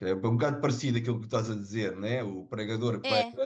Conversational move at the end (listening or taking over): listening